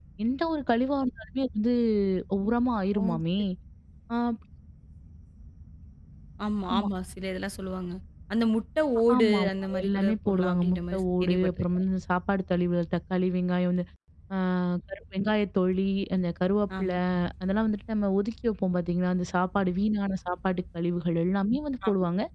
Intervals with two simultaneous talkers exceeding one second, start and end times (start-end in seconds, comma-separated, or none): 9.2-11.8